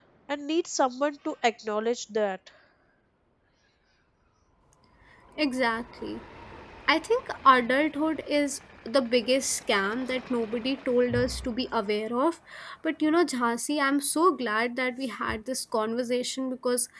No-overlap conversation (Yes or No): Yes